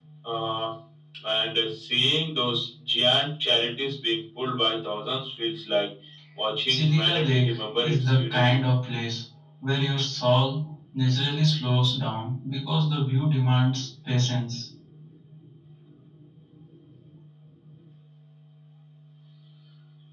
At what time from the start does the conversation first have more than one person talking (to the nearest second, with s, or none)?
7 s